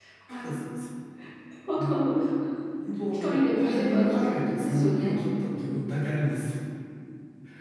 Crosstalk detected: Yes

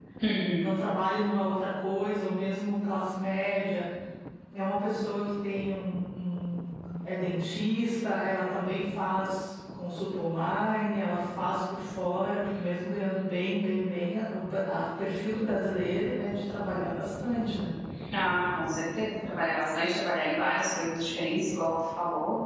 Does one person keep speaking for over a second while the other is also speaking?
No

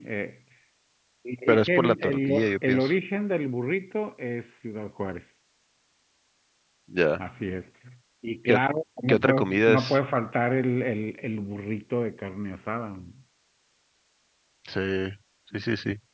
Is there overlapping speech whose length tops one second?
Yes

